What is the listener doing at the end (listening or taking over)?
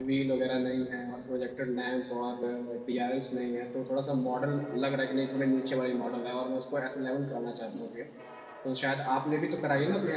listening